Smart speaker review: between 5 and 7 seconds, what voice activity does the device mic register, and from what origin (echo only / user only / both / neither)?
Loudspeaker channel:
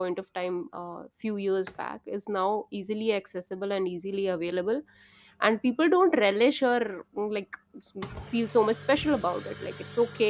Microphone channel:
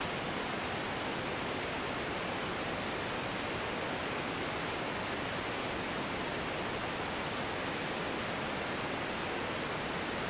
neither